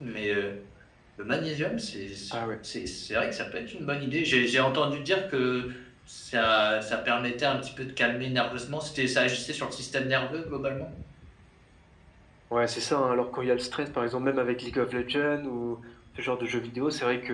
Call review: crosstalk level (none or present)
none